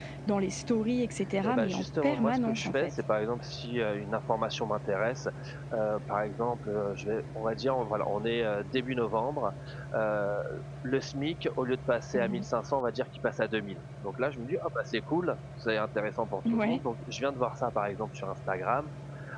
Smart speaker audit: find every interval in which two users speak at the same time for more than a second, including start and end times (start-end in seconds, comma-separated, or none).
1.4-2.9